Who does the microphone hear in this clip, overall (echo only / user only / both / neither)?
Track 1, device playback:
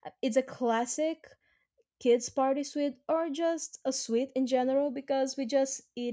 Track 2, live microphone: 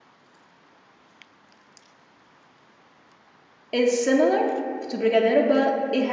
user only